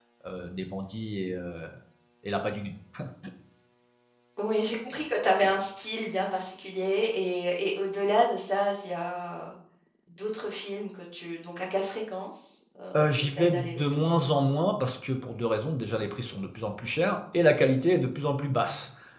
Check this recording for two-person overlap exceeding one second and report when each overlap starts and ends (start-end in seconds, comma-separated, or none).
13.0-14.2